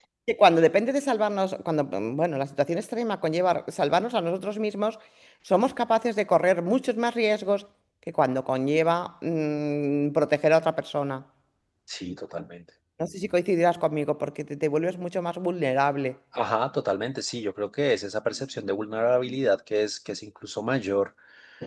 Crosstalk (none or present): none